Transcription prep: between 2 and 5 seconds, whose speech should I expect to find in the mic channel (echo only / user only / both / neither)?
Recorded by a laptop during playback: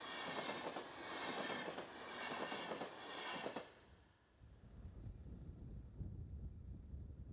neither